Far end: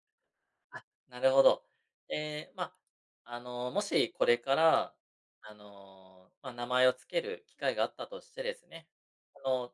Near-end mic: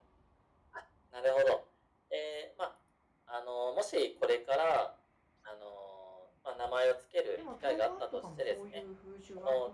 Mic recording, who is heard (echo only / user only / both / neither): both